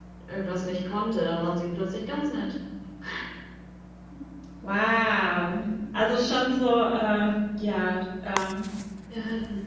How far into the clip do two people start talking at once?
none

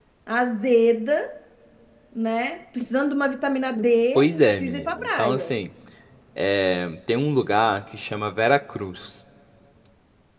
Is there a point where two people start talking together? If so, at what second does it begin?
4.2 s

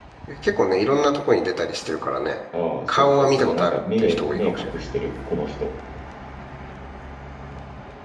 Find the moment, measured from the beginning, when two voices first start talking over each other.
2.9 s

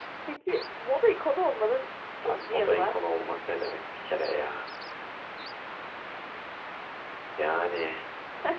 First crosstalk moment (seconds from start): 2.2 s

